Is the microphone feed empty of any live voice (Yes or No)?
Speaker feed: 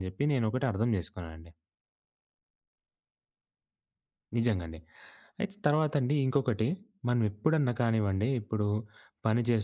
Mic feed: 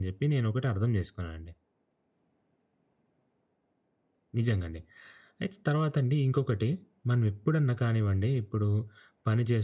Yes